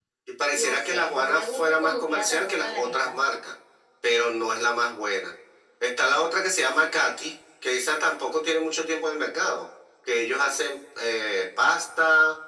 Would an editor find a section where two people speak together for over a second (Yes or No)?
Yes